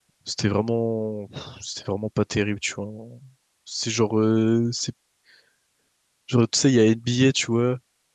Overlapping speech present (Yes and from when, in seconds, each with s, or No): No